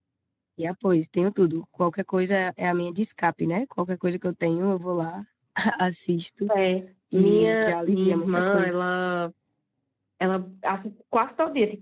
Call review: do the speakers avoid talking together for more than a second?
No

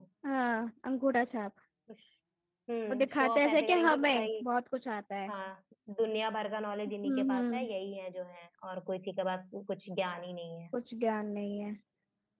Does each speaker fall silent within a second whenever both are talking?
No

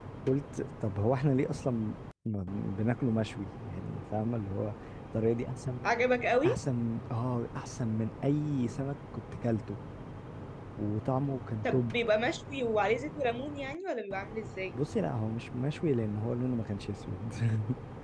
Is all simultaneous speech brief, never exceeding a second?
Yes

